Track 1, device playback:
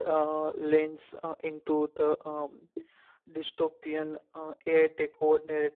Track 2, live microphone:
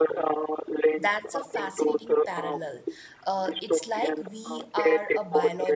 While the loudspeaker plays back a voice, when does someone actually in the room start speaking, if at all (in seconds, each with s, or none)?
1.0 s